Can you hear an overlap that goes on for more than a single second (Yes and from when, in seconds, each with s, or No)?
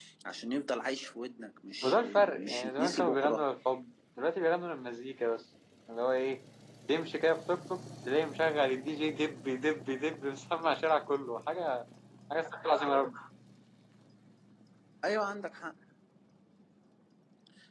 Yes, from 1.8 s